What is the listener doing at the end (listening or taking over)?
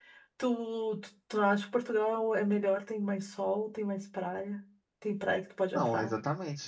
taking over